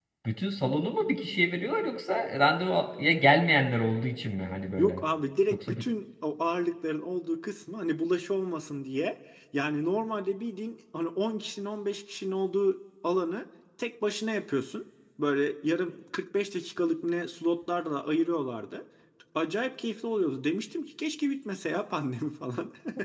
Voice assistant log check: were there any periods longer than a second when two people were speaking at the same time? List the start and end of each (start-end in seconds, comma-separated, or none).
none